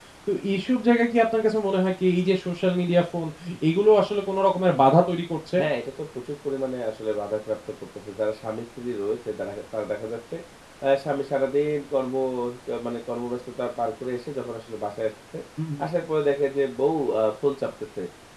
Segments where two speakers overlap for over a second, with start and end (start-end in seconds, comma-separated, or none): none